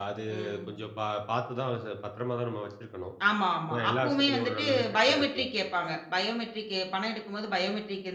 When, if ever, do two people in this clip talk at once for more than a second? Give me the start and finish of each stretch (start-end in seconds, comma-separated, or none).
3.7-5.5